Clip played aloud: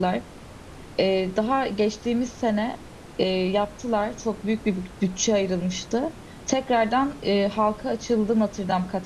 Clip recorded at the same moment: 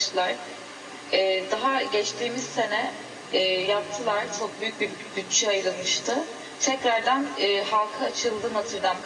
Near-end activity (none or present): none